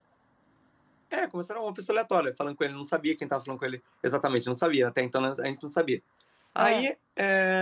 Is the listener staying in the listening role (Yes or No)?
Yes